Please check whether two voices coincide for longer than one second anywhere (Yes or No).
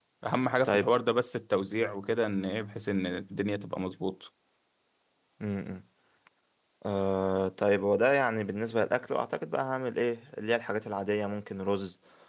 No